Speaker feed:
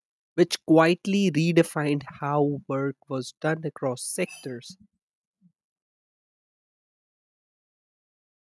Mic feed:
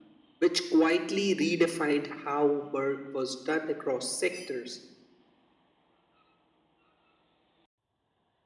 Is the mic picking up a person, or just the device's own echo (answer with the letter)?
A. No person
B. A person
A